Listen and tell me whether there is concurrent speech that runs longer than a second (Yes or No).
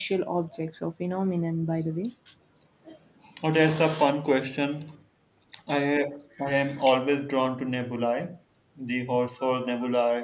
No